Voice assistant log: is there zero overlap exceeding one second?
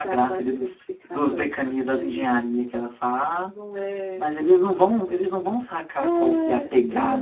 No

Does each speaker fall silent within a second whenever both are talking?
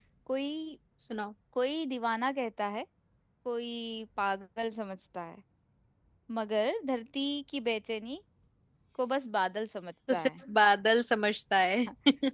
Yes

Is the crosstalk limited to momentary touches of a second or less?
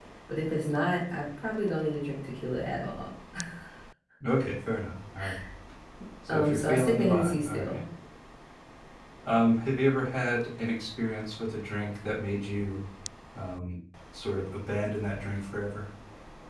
No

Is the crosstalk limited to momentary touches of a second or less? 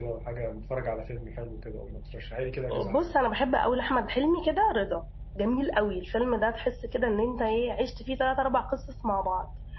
Yes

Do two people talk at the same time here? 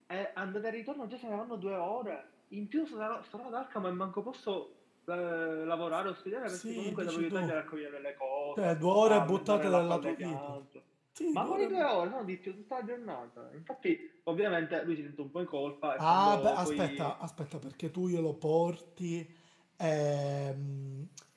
Yes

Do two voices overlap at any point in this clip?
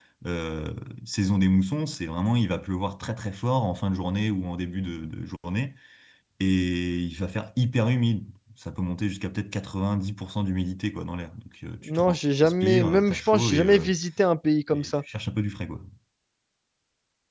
Yes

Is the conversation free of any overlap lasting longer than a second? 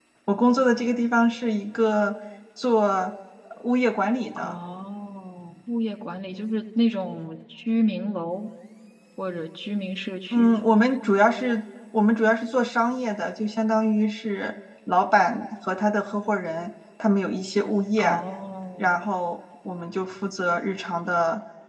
Yes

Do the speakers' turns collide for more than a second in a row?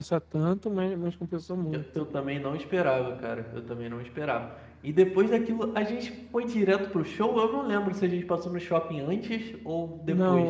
No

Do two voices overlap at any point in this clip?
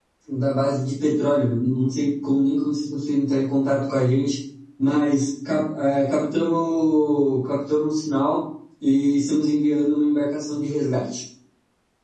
No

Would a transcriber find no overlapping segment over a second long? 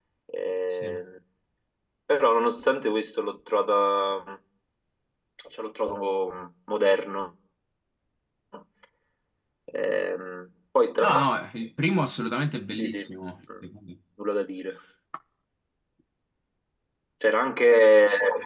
Yes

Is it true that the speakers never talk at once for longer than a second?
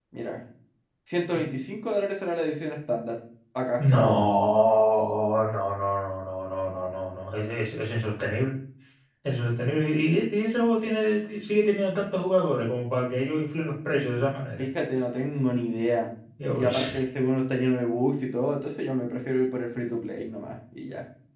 Yes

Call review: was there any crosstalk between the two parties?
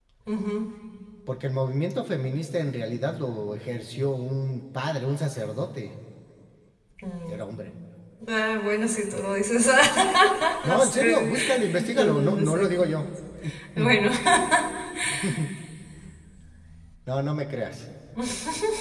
Yes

